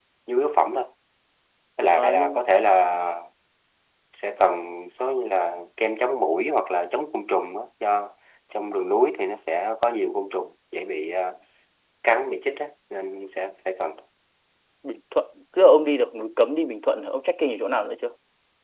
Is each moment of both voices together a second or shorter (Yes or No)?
Yes